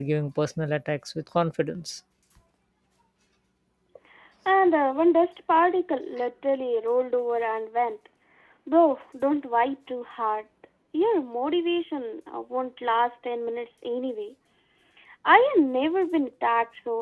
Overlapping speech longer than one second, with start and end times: none

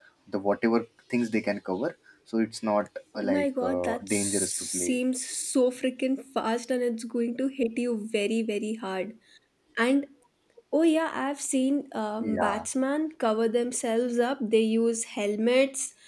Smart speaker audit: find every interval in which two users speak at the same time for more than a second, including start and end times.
3.1-5.0

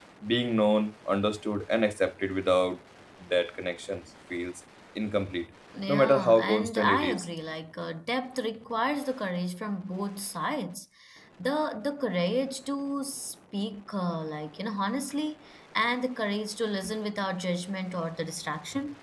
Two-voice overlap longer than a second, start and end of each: 5.9-7.2

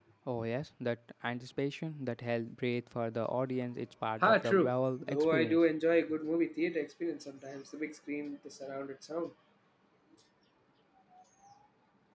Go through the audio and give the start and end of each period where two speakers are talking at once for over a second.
4.2-5.6

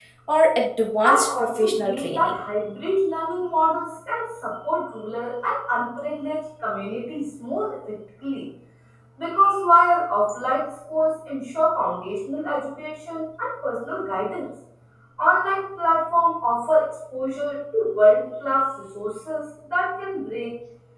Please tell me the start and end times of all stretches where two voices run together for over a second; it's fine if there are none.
1.1-2.4

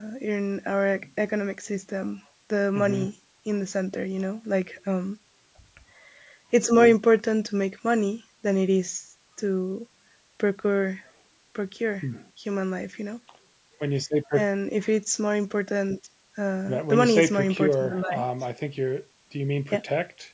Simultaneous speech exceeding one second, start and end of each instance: 16.7-18.2

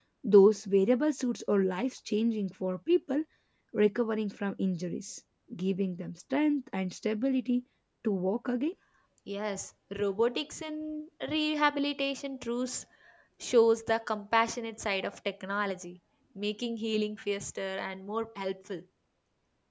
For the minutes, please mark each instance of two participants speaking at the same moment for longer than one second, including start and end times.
none

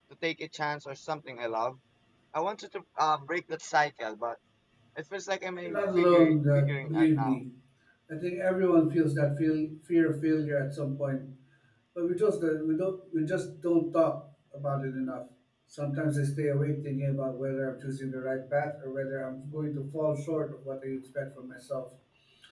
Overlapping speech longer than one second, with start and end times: 5.6-7.4

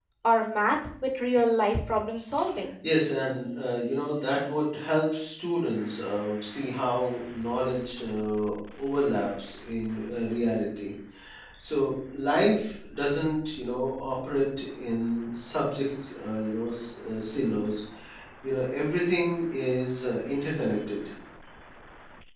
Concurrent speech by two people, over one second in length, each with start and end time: none

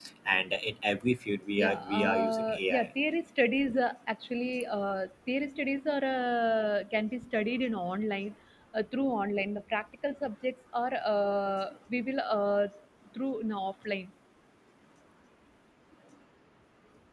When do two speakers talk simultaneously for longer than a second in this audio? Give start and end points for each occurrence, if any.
1.6-2.9

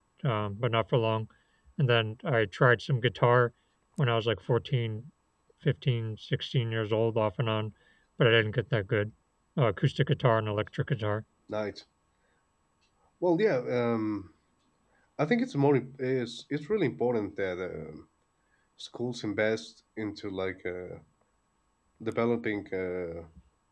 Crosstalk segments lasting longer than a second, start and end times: none

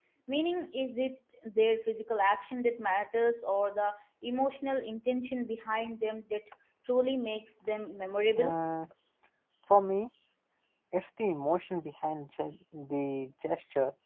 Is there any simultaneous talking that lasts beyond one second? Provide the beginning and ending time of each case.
none

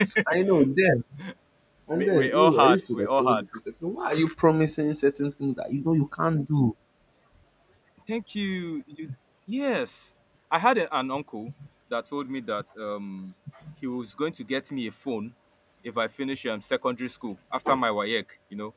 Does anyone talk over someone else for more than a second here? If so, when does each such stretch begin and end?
1.9-3.4

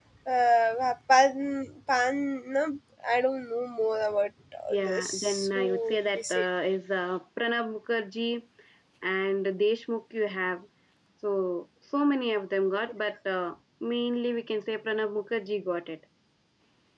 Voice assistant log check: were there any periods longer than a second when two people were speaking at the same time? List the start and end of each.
4.7-6.5

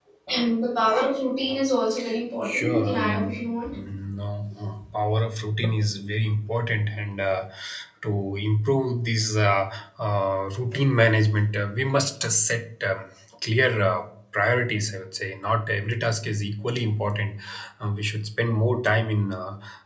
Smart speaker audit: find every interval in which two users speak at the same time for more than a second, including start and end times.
2.4-3.8

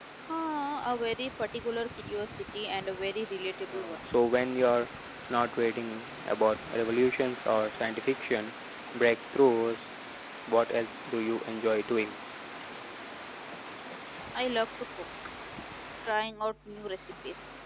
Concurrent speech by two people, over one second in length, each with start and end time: none

